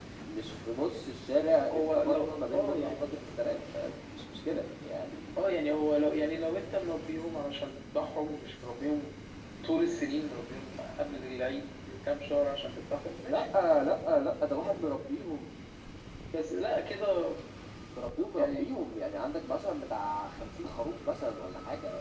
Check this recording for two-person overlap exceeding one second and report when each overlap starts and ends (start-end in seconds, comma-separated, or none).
1.7-3.2